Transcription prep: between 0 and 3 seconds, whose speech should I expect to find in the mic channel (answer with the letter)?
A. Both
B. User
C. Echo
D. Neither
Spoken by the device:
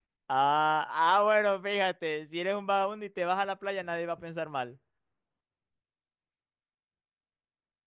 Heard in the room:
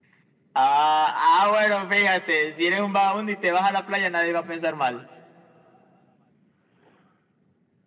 C